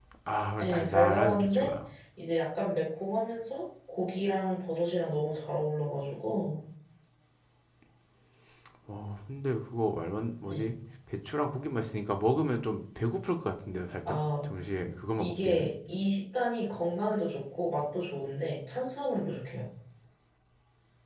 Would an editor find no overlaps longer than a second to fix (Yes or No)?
No